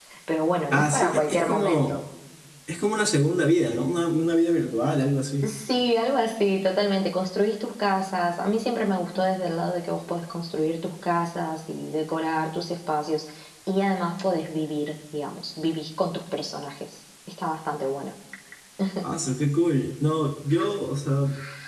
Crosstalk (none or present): present